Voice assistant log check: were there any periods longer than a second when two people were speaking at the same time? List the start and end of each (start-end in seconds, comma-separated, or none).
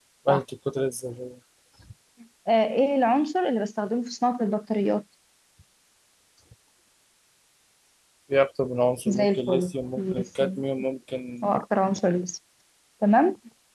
9.1-10.6